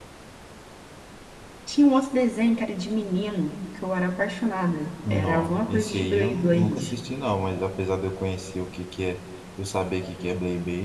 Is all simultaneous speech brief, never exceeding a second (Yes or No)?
No